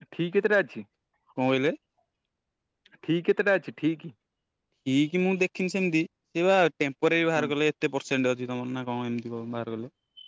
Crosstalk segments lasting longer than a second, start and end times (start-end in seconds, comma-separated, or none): none